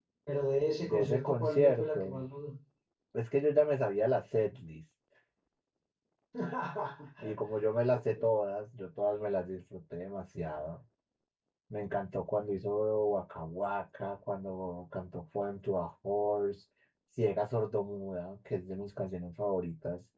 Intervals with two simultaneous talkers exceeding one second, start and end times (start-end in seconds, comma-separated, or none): 0.8-2.2